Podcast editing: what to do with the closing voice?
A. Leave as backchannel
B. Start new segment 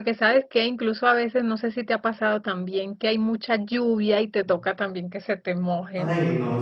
B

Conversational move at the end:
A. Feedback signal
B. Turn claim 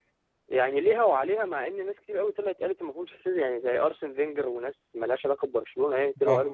A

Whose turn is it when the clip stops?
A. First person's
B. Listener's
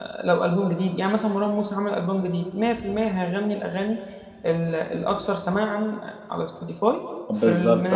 B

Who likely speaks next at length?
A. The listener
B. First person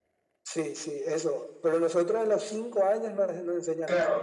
A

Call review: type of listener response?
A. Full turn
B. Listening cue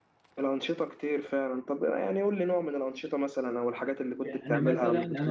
A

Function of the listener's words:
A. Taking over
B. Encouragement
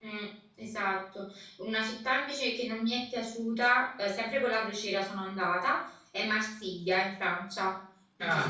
A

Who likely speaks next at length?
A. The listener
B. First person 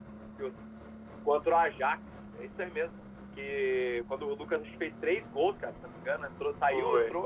B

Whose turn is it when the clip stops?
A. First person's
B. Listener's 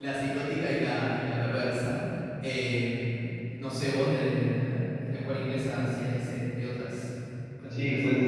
B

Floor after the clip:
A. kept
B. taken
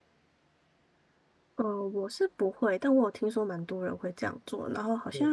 A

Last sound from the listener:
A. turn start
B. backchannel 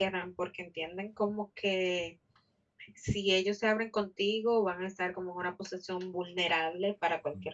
A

